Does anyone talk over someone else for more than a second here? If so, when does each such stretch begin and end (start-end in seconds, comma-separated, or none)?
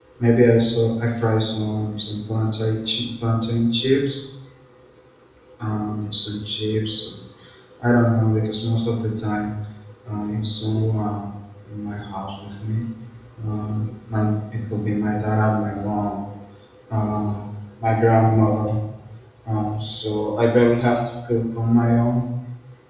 none